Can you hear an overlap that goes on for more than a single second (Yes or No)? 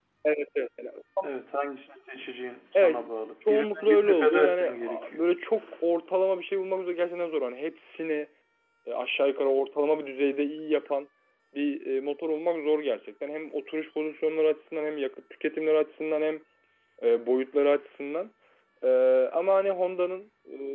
Yes